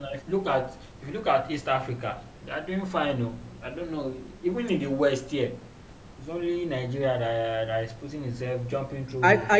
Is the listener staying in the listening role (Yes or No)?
No